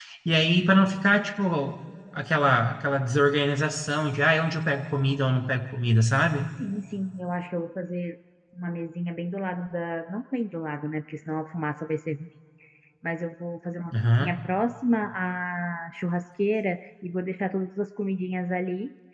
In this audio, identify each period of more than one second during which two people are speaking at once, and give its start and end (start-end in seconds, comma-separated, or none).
none